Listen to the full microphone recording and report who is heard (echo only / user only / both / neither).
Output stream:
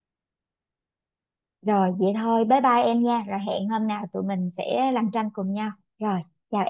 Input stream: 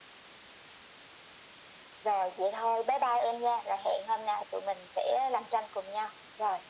echo only